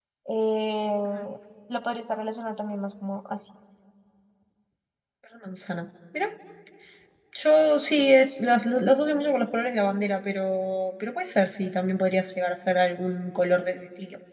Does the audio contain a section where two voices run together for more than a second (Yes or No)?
No